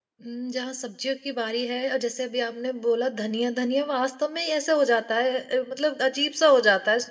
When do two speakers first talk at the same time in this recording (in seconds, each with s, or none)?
none